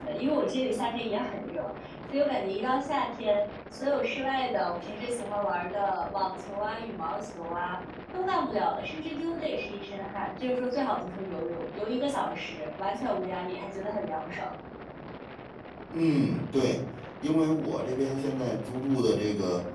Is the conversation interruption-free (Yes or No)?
Yes